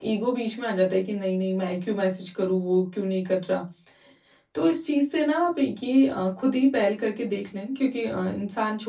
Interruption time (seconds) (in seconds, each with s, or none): none